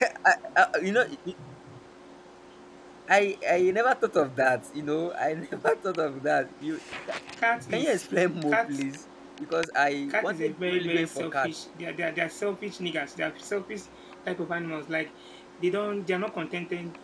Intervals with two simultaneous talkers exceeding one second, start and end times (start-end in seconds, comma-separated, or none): 10.1-11.5